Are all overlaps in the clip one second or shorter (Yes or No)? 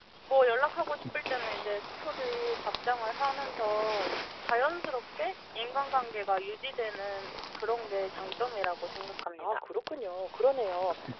No